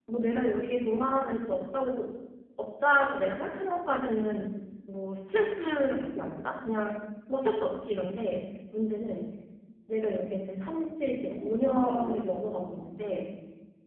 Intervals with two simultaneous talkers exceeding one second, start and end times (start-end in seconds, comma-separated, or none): 11.4-12.9